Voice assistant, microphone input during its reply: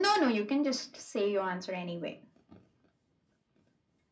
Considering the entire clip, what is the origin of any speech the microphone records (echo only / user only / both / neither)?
echo only